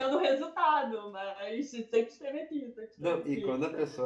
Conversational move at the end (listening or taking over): taking over